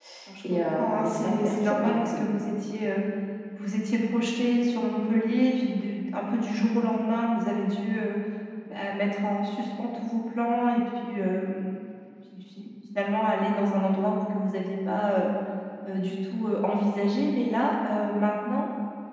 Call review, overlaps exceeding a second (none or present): present